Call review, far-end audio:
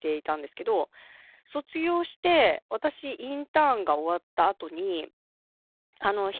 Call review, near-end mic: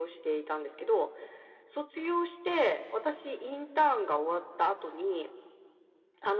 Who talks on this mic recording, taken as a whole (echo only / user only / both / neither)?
echo only